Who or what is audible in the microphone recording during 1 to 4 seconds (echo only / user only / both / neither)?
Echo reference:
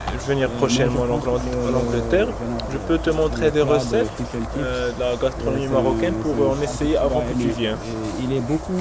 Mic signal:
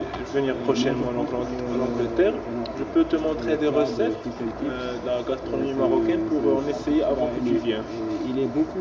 echo only